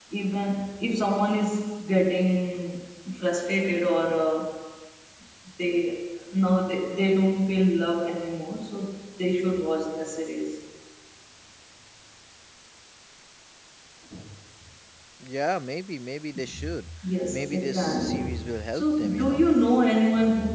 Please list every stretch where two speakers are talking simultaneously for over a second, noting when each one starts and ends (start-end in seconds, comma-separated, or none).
17.3-19.4